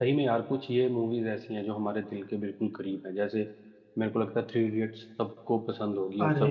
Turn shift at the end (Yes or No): Yes